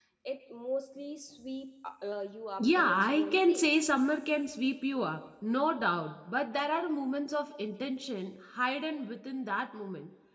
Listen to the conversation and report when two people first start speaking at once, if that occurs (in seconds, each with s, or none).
2.6 s